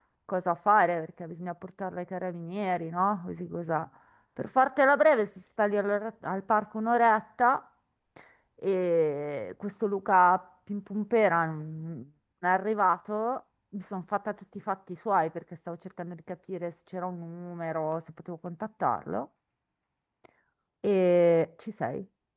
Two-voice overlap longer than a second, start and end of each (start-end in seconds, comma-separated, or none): none